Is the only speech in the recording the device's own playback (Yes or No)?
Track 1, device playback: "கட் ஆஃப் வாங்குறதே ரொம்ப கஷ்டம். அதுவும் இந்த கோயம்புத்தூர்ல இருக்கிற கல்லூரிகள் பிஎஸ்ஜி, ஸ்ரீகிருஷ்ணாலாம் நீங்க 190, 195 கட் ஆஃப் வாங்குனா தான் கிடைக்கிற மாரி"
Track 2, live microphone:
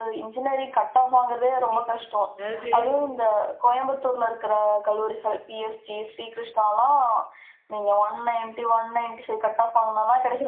No